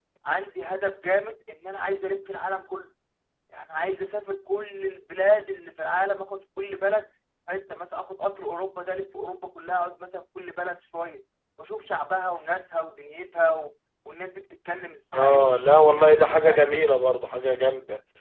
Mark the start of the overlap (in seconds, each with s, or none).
15.1 s